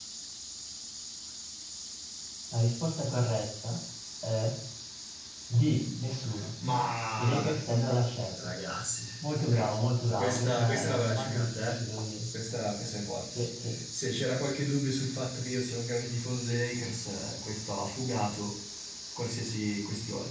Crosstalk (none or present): present